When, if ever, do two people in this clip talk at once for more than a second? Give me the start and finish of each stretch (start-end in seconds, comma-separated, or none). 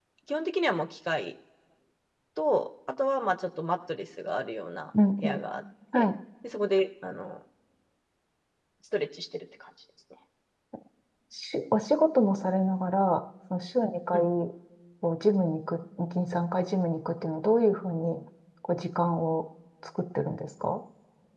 none